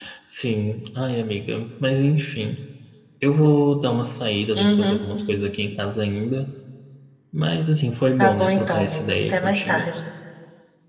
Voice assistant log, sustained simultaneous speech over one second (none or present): present